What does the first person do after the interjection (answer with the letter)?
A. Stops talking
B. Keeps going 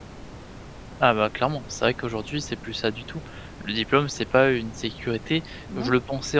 B